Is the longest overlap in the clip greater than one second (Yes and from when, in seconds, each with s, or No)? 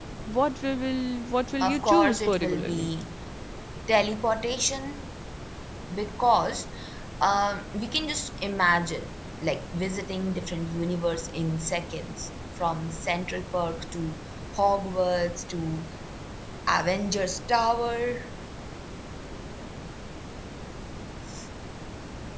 Yes, from 1.6 s